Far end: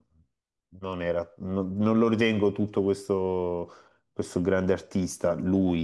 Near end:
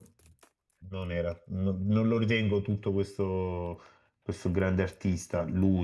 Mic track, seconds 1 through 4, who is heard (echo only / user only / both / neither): echo only